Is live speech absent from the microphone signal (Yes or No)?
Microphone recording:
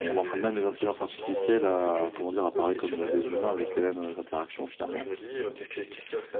No